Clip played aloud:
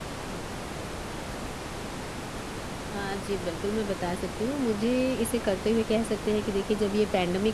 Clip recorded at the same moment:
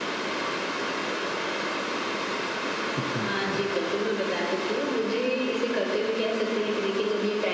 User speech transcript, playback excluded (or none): अच्छा, अच्छा।